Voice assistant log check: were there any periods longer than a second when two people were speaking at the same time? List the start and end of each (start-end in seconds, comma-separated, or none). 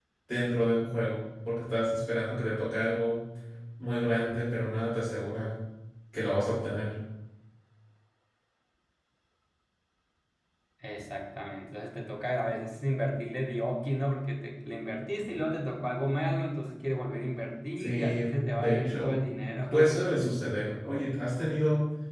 17.8-19.2